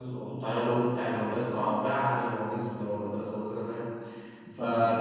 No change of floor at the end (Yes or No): Yes